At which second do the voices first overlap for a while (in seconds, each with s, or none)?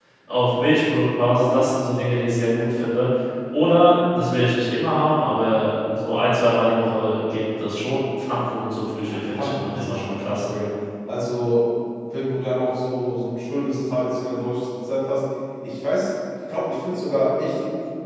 9.0 s